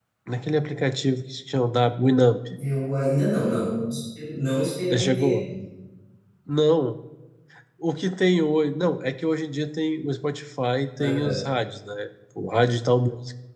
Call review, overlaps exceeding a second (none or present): none